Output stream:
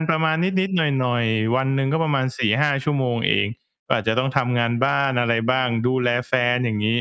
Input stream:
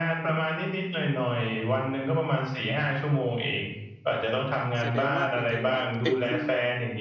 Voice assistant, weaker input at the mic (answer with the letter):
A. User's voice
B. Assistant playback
A